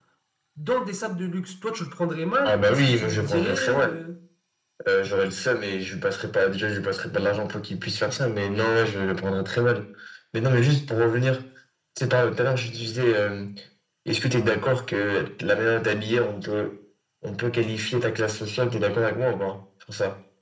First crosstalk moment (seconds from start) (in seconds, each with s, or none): 2.4 s